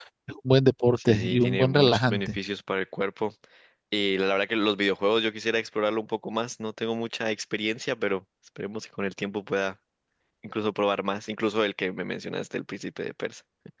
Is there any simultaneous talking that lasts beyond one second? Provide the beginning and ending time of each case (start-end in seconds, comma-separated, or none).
1.0-2.4